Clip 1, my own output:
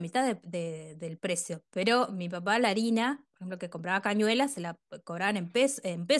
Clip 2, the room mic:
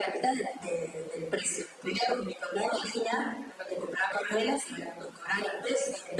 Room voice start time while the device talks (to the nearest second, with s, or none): none